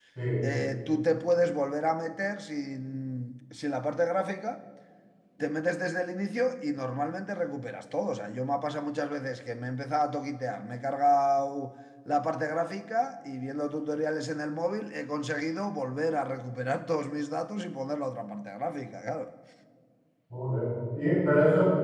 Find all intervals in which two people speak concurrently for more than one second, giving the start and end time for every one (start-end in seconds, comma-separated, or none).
none